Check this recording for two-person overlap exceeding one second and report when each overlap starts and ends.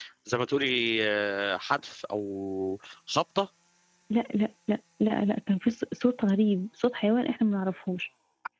none

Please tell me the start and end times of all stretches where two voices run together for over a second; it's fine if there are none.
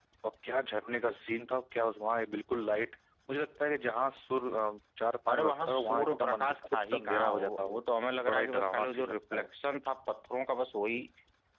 5.3-7.8, 8.3-9.5

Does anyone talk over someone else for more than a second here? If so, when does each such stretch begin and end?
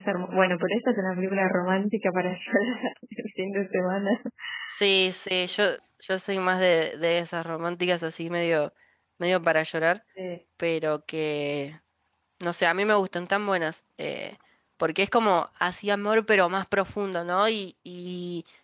none

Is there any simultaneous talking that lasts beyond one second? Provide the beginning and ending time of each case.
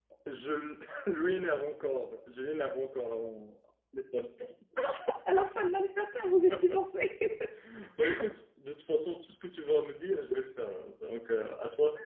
none

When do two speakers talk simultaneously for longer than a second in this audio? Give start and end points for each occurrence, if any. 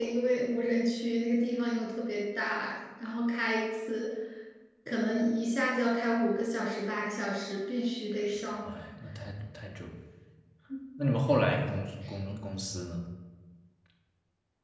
none

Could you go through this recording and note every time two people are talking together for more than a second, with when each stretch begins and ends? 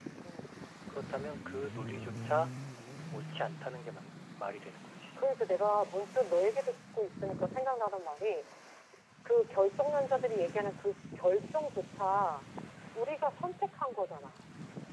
none

